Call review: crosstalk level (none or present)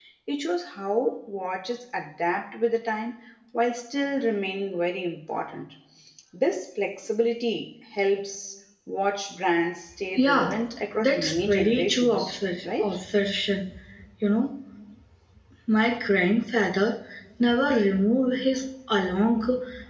present